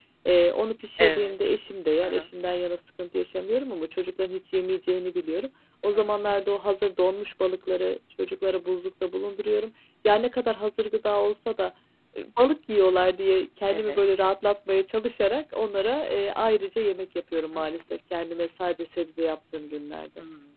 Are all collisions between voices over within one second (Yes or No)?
Yes